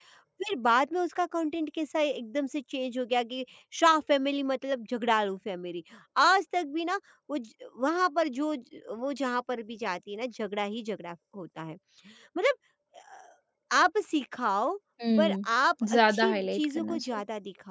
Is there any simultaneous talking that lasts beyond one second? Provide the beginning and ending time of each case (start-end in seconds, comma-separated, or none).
15.9-17.2